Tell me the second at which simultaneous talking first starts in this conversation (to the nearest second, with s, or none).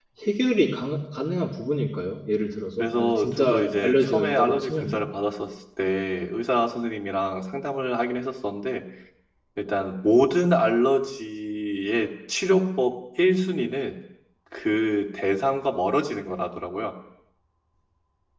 3 s